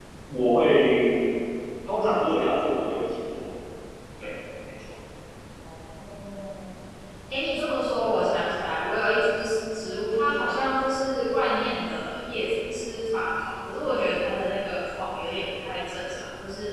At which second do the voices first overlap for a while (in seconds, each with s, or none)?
none